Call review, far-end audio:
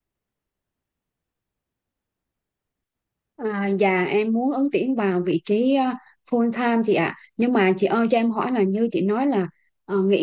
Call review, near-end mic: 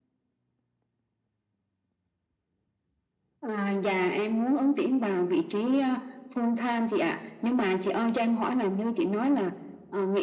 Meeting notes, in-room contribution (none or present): none